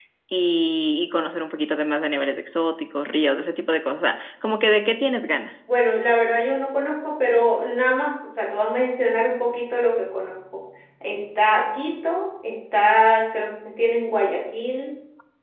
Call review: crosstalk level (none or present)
none